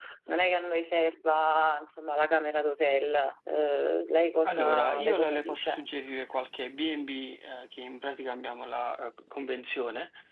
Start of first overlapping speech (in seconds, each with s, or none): 4.4 s